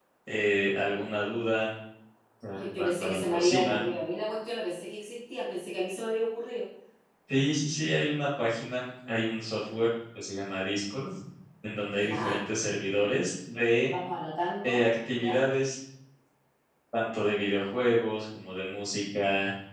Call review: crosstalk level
present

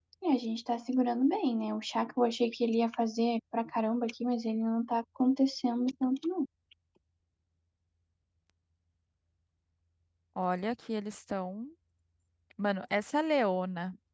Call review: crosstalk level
none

